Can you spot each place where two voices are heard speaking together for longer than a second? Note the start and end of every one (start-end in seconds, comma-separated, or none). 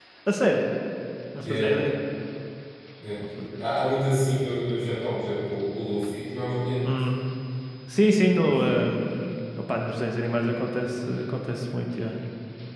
none